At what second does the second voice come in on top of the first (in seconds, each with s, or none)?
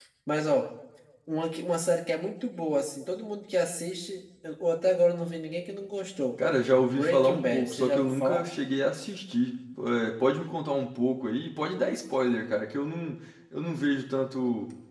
6.9 s